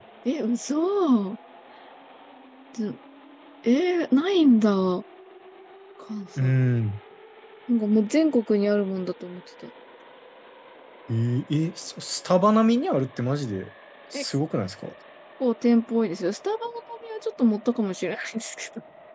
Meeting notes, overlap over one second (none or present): none